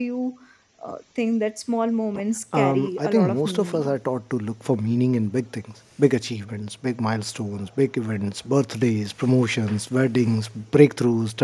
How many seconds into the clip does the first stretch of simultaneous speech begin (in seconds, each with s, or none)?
2.5 s